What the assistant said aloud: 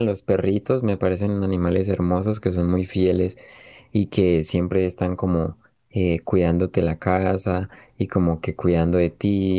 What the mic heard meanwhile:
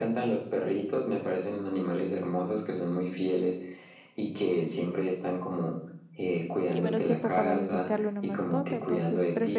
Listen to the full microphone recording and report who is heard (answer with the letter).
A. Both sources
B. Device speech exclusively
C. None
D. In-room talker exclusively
A